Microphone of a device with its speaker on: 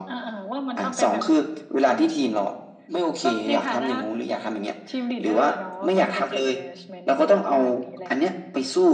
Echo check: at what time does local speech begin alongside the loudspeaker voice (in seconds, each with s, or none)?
none